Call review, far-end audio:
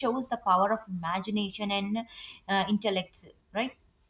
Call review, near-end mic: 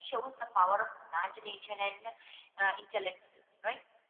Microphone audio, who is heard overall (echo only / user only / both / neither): echo only